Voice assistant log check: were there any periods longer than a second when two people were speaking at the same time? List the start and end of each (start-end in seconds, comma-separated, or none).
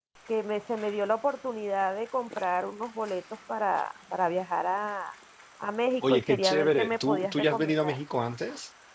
6.1-8.0